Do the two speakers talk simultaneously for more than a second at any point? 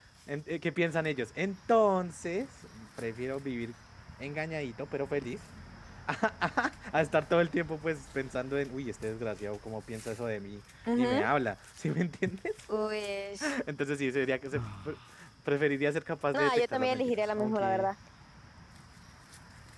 Yes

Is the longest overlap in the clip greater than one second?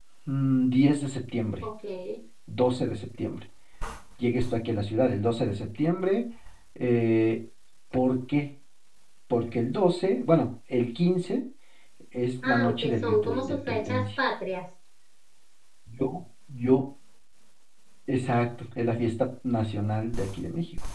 Yes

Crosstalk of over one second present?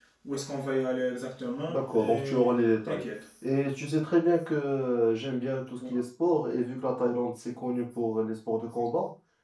Yes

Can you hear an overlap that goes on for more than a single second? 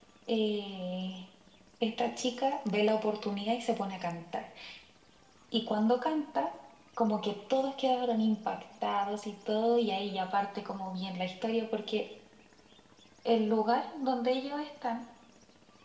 No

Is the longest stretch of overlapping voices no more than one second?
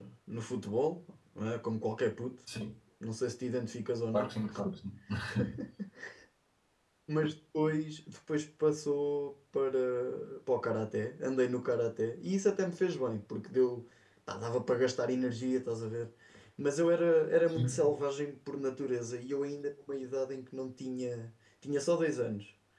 Yes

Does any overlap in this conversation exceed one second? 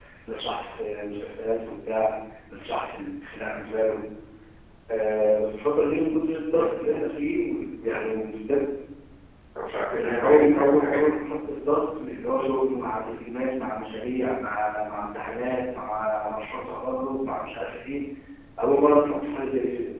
Yes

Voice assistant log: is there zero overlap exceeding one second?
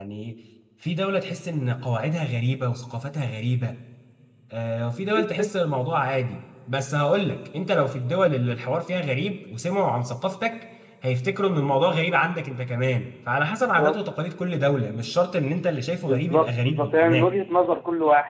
No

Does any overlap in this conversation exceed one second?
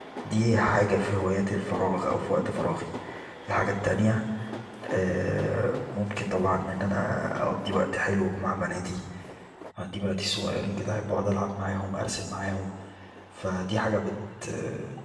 No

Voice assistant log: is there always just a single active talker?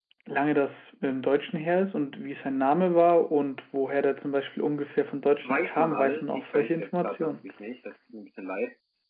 No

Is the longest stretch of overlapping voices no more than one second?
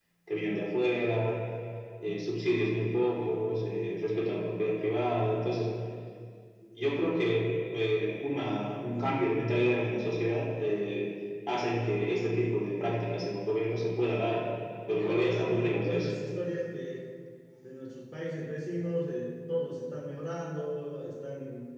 No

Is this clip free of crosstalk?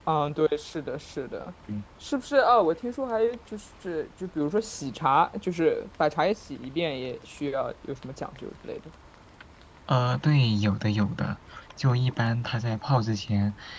Yes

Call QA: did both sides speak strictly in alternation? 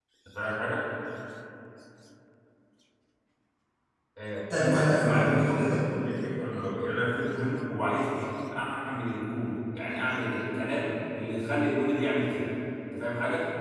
No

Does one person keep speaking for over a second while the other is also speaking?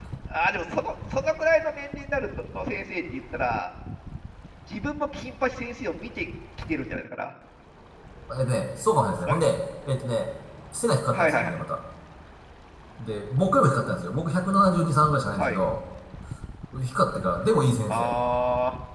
No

